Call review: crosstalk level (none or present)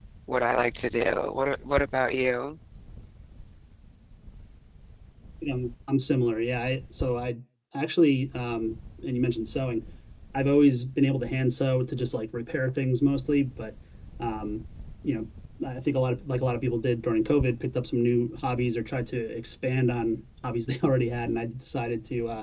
none